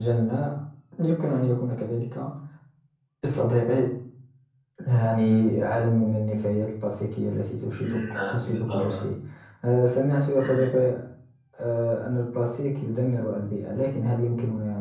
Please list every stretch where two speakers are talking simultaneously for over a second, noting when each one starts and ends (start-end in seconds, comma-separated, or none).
7.8-9.0